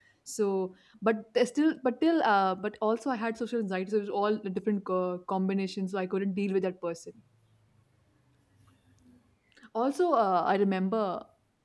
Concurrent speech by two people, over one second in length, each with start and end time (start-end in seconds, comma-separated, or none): none